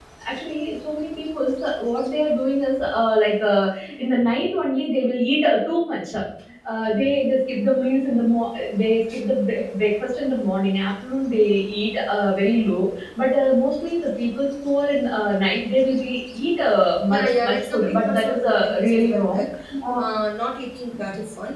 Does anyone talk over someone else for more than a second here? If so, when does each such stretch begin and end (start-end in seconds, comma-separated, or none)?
17.1-19.4